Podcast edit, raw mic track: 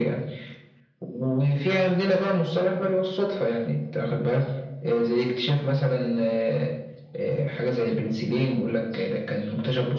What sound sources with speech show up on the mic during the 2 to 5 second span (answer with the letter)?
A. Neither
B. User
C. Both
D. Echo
D